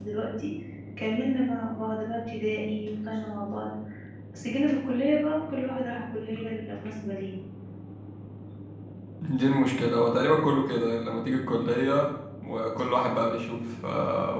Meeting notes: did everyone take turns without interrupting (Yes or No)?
Yes